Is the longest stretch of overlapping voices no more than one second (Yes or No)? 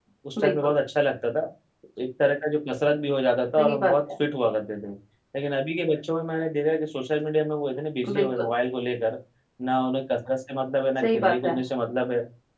Yes